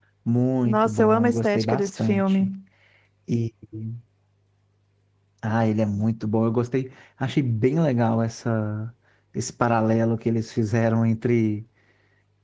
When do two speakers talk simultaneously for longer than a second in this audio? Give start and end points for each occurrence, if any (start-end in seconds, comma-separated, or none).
0.7-2.5